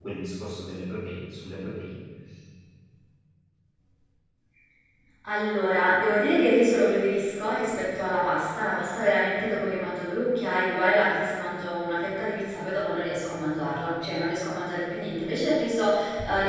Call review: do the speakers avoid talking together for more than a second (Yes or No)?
Yes